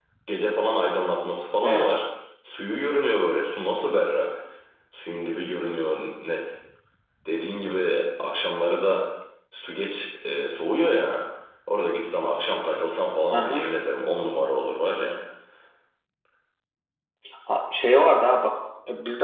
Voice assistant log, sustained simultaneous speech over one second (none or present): none